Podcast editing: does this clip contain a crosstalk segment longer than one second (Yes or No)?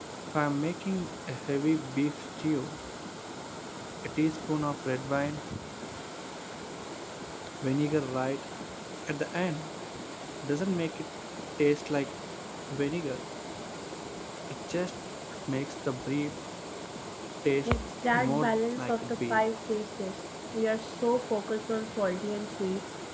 Yes